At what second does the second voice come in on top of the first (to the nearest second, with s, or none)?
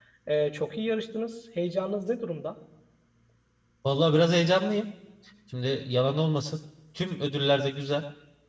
none